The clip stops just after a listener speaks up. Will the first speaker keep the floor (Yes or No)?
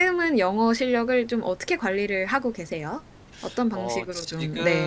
No